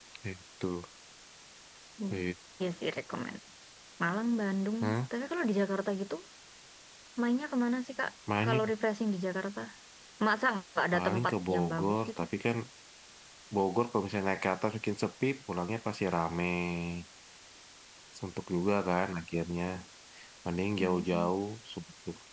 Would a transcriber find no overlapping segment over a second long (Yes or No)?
No